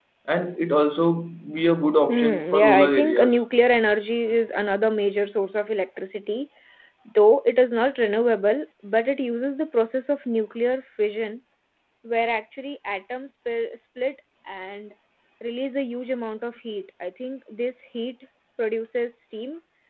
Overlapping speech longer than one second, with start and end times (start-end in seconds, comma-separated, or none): 2.1-3.4